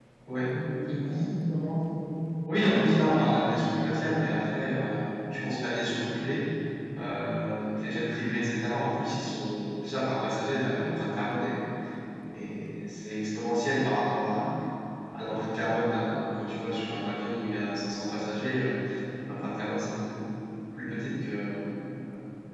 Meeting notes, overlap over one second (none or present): none